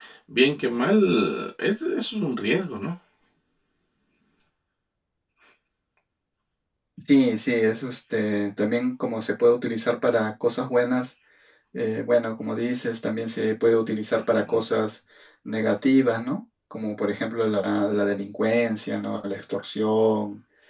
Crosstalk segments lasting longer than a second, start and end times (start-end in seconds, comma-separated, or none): none